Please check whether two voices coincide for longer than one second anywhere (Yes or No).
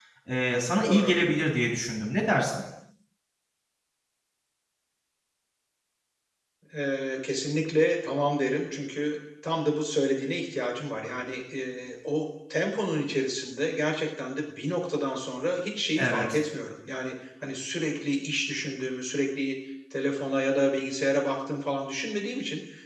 No